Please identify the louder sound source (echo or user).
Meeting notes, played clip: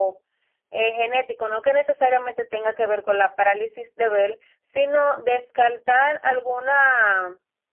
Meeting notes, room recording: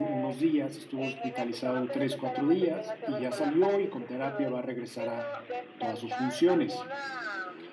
user